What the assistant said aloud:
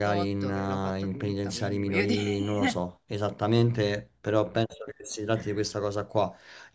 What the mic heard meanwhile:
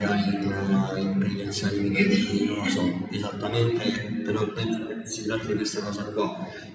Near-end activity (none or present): none